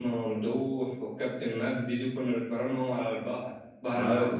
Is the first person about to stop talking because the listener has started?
Yes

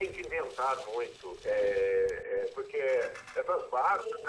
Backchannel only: Yes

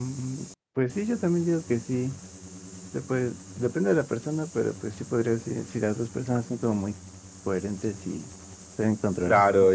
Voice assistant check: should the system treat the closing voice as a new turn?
Yes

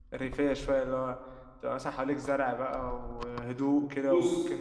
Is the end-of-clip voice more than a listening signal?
No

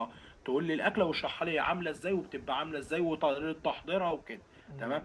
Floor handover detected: No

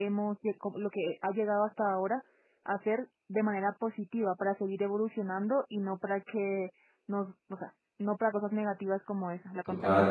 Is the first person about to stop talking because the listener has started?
Yes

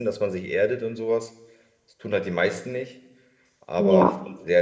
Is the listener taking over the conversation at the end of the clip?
No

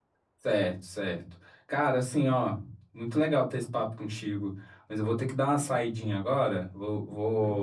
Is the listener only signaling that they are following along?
Yes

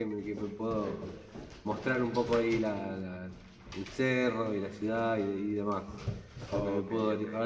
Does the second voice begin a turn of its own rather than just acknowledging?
No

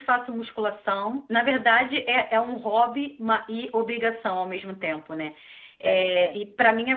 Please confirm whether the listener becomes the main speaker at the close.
No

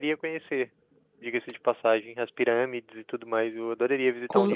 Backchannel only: No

